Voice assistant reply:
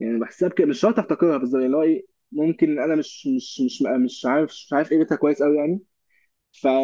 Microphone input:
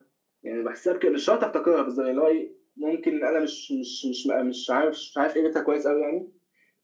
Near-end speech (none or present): none